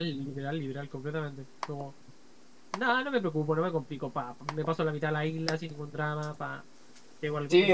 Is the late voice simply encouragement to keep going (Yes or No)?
No